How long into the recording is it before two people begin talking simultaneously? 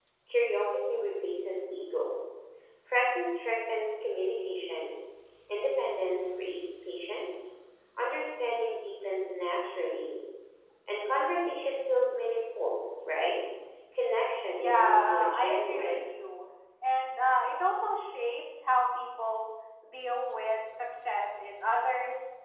14.6 s

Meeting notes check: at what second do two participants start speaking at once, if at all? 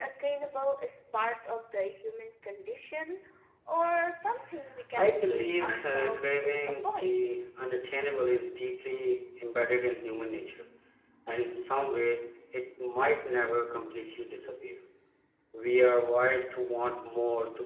5.0 s

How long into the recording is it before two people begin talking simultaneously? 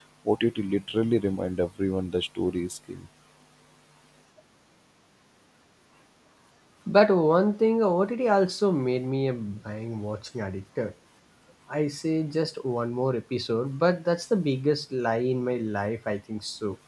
none

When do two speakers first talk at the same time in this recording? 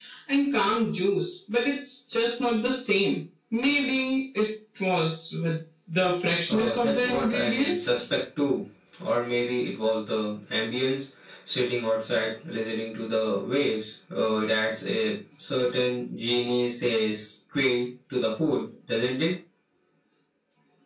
6.5 s

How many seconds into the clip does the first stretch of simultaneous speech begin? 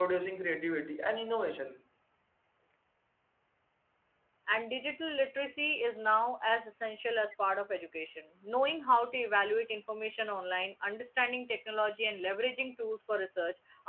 none

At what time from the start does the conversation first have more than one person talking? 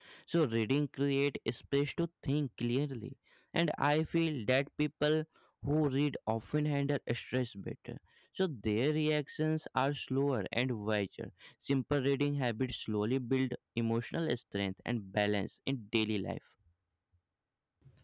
none

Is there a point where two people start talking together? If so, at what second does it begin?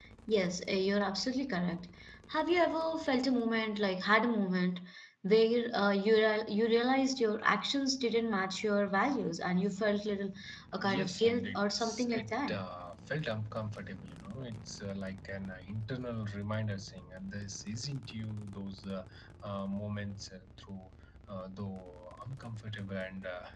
10.8 s

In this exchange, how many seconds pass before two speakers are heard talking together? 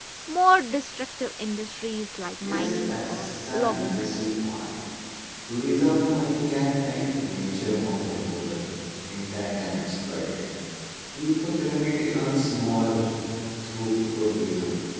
2.4 s

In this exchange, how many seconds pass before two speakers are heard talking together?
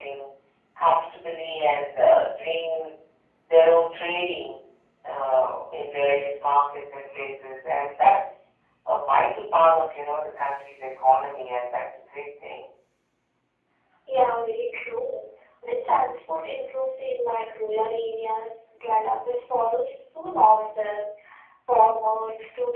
none

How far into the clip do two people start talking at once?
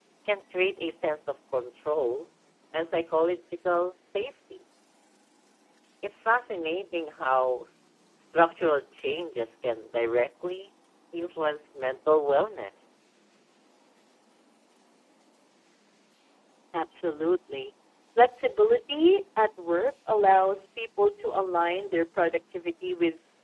none

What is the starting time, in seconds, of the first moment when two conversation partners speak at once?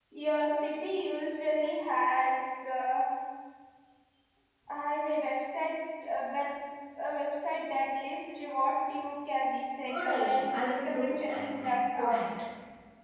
9.8 s

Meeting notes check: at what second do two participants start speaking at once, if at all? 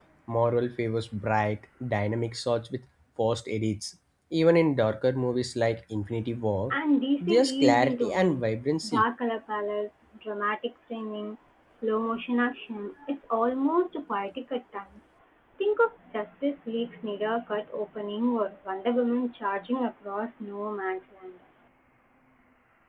7.2 s

